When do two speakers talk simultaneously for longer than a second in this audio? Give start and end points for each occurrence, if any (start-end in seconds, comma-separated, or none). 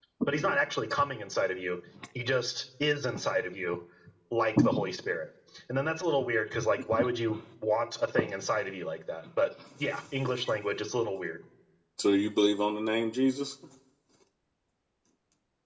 none